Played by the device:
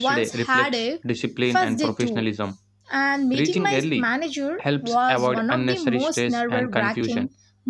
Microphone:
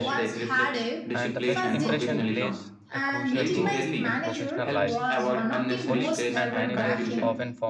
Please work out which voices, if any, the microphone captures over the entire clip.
both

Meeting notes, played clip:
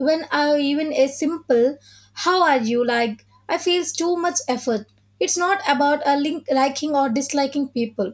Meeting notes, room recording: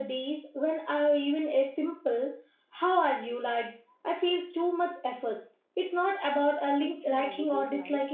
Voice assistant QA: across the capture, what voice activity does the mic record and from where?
both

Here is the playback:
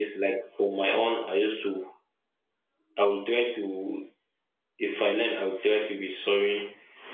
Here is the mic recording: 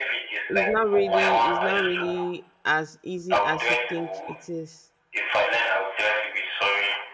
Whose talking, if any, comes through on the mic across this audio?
both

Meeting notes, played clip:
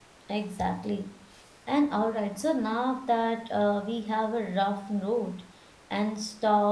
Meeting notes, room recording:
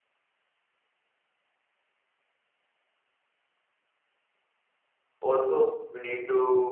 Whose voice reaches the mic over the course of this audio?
user only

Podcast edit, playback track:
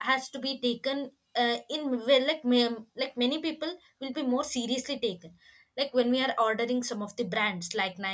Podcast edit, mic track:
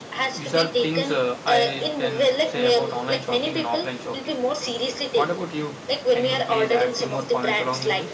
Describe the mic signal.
both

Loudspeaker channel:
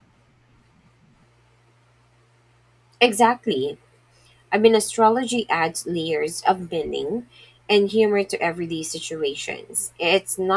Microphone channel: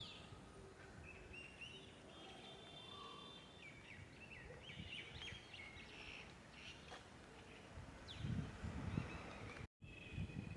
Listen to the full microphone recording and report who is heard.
neither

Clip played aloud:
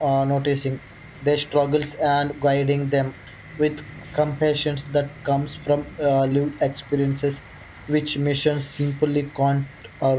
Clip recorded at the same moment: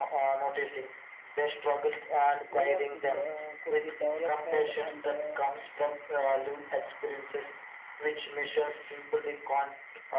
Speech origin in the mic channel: both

